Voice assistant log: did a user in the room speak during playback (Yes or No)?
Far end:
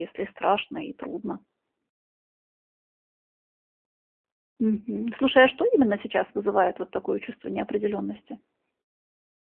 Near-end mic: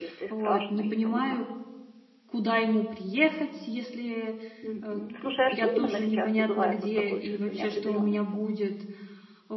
Yes